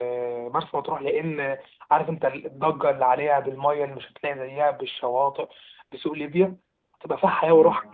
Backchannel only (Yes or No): Yes